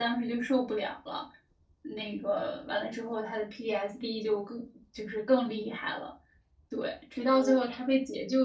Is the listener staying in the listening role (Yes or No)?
Yes